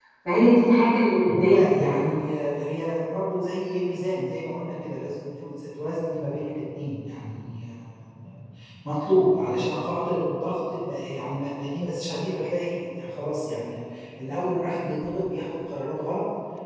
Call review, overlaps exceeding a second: none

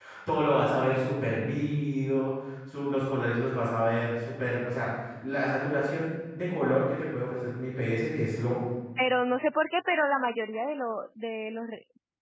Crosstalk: none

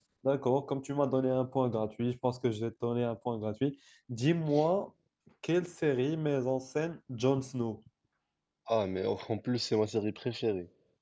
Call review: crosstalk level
none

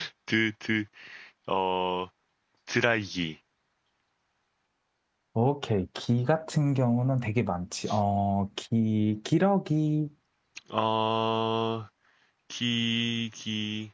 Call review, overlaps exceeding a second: none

